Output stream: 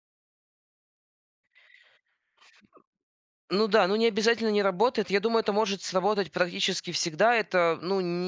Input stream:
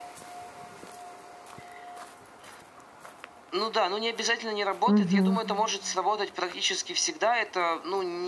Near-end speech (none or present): present